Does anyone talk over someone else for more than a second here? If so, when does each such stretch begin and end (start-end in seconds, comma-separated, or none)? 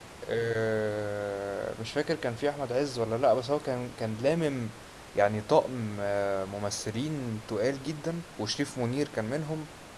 none